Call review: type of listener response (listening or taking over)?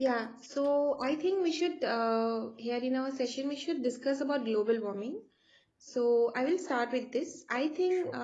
listening